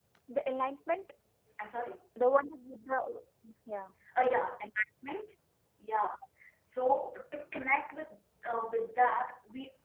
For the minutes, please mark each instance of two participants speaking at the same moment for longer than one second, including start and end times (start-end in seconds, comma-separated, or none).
none